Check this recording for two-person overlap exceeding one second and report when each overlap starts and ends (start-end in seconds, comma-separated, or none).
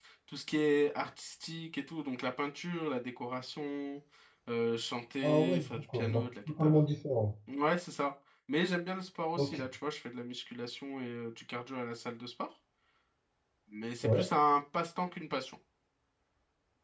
5.2-6.7